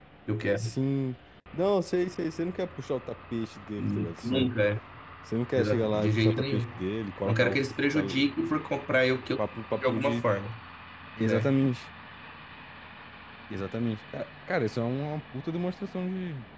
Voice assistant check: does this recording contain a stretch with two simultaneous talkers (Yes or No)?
Yes